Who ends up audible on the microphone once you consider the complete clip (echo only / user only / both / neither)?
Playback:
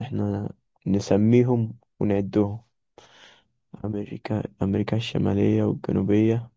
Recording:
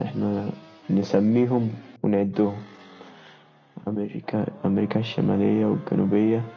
echo only